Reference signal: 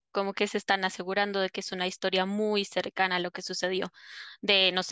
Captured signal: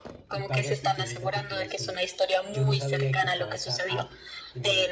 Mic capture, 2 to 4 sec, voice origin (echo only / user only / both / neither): both